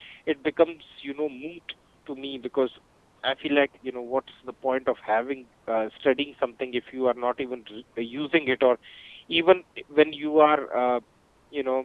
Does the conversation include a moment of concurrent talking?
No

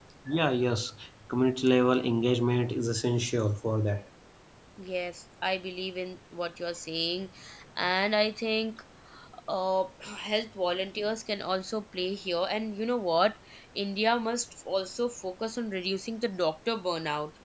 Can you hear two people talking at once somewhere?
No

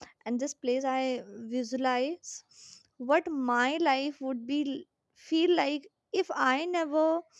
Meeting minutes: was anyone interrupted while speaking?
No

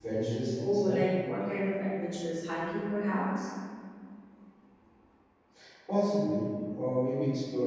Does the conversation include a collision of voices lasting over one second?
No

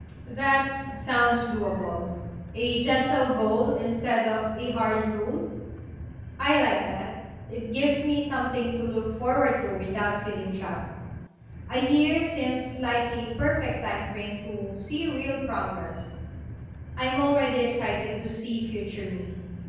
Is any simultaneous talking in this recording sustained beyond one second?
No

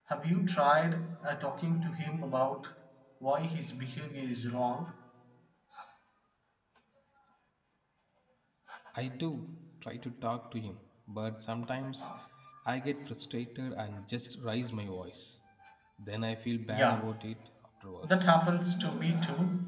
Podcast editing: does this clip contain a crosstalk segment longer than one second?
No

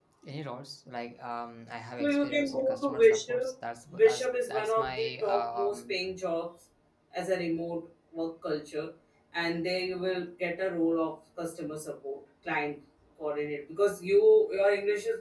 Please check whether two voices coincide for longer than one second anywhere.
Yes, from 2.0 s

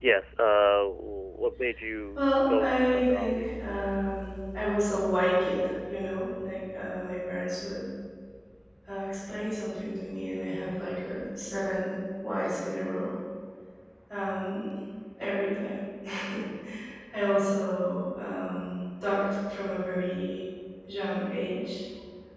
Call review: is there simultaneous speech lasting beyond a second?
Yes, from 2.1 s

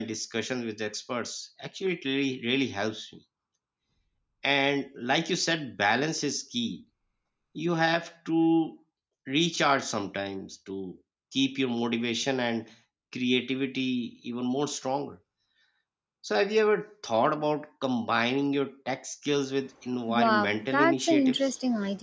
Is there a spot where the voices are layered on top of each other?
Yes, from 20.1 s

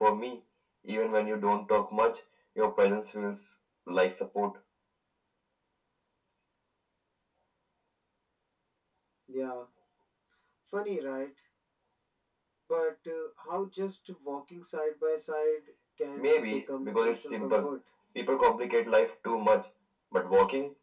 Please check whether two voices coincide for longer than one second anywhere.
Yes, from 16.2 s

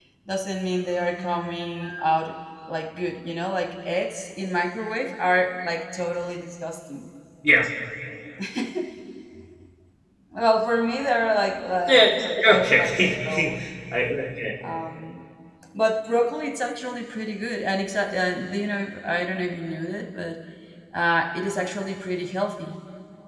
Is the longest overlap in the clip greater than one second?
Yes, from 11.9 s

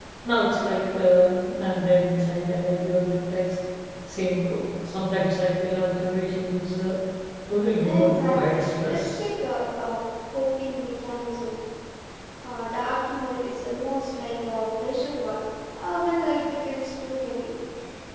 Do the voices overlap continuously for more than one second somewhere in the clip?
Yes, from 7.8 s

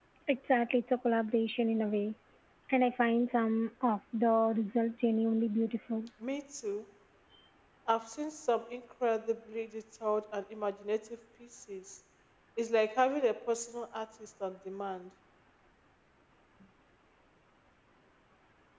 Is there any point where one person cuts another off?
No

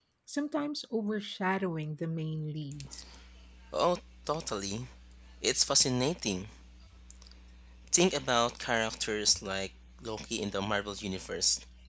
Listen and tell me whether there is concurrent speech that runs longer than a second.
No

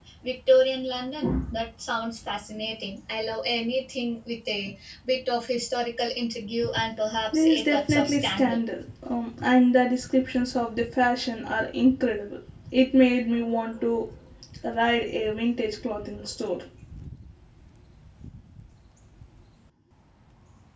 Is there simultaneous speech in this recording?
Yes, from 7.3 s

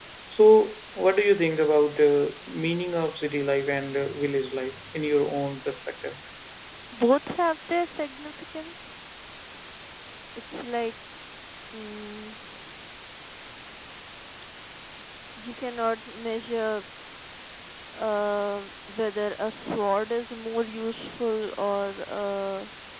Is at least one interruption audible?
No

